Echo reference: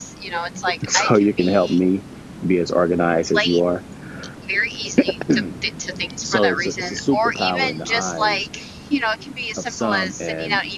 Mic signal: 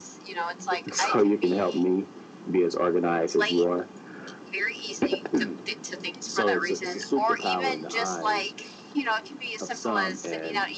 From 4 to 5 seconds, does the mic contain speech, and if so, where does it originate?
echo only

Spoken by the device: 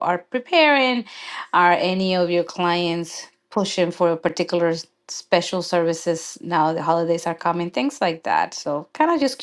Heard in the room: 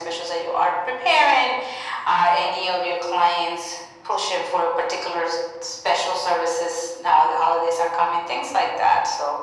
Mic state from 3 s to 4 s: echo only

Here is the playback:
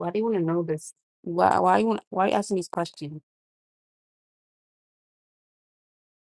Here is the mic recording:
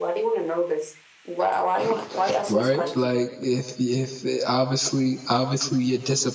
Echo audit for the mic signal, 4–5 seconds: user only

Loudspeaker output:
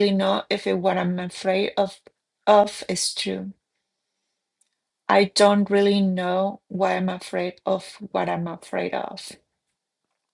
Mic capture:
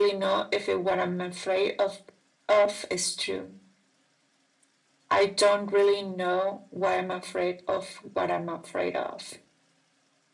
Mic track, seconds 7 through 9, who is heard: echo only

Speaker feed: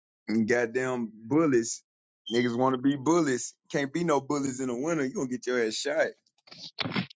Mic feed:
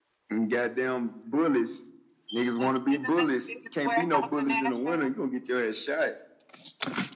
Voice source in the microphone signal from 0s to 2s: echo only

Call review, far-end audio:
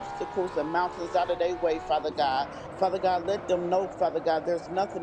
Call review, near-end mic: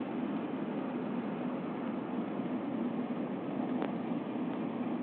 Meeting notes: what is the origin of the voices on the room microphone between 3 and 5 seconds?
neither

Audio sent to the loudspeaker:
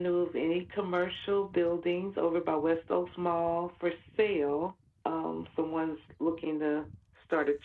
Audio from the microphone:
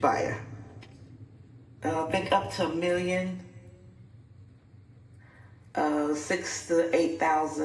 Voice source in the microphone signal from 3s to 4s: user only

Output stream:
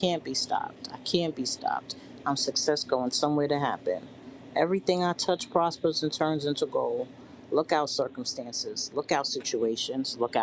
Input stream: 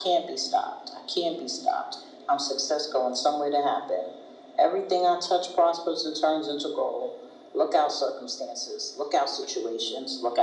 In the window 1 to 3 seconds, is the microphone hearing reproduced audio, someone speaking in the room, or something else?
echo only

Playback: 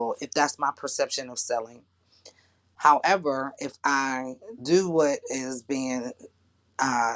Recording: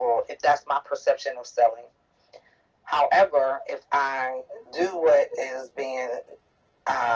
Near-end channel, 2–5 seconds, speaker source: echo only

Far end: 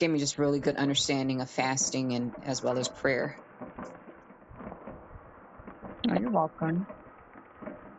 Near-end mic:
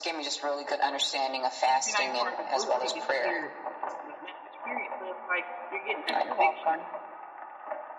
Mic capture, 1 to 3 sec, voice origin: both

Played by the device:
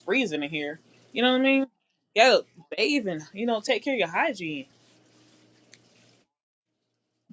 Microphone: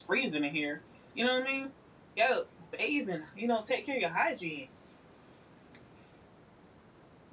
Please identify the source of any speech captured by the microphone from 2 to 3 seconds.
echo only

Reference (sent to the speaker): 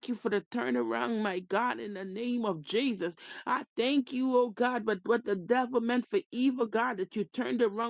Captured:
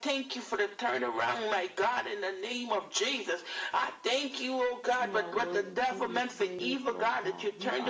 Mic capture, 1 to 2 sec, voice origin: echo only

